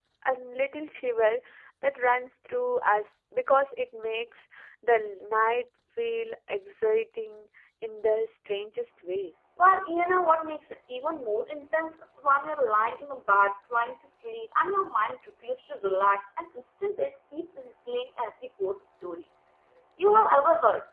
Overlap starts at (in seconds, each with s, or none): none